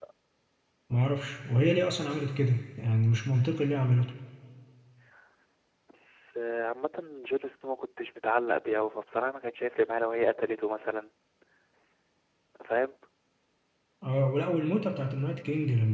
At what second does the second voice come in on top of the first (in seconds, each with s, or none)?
none